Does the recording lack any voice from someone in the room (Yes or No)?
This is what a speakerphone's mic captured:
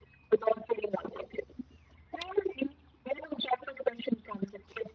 Yes